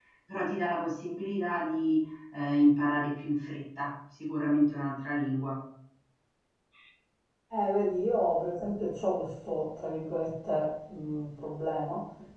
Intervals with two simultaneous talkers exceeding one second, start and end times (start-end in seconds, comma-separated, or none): none